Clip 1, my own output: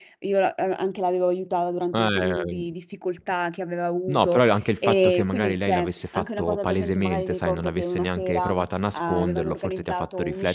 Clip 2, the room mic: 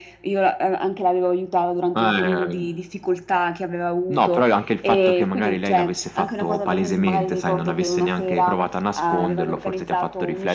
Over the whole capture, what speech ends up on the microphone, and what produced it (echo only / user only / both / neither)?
echo only